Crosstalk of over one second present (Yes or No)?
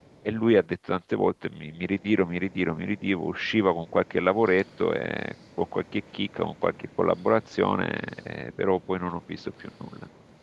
No